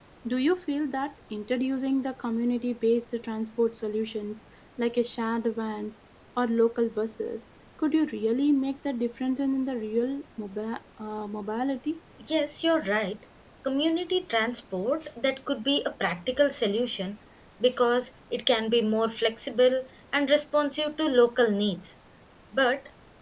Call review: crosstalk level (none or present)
none